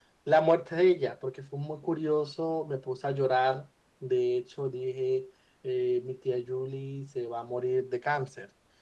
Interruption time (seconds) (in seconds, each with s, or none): none